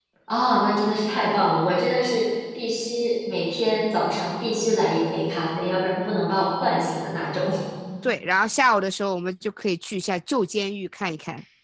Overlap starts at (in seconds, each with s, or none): none